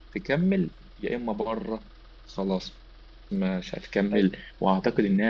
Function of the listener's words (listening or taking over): listening